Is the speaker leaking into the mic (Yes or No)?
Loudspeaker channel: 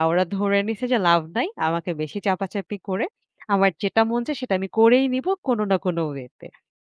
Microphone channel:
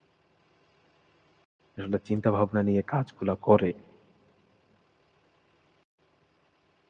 No